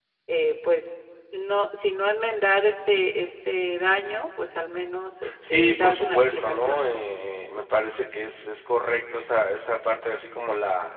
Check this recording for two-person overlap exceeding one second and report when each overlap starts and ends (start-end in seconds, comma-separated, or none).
5.5-7.0